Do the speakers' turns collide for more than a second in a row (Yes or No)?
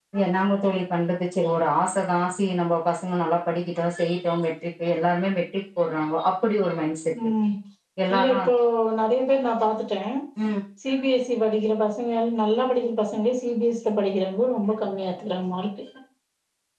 No